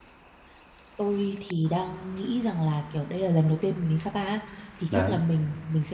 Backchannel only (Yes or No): Yes